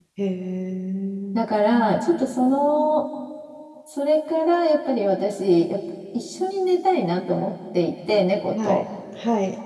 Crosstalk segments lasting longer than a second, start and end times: none

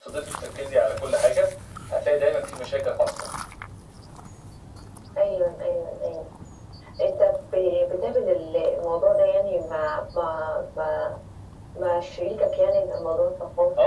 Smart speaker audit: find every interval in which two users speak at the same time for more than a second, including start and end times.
none

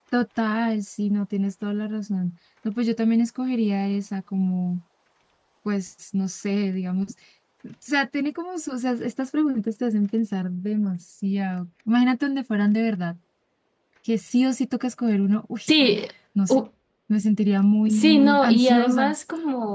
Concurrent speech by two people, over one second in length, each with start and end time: 17.9-19.1

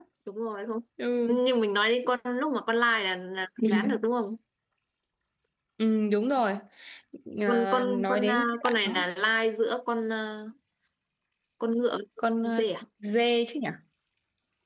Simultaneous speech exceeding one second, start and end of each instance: 7.5-9.0

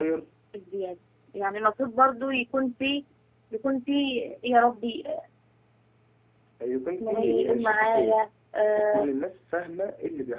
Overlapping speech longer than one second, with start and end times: 7.0-8.2

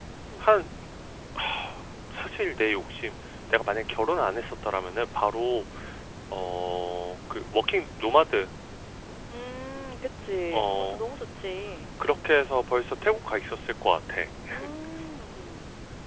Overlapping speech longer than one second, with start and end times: none

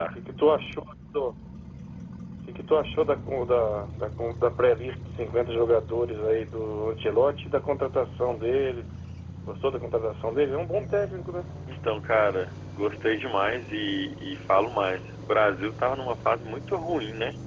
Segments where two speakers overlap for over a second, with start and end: none

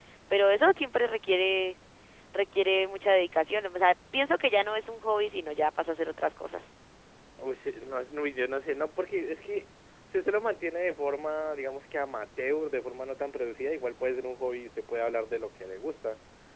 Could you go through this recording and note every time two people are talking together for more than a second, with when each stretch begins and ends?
none

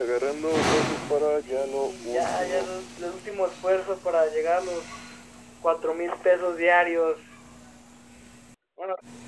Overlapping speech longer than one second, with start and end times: 1.4-2.8

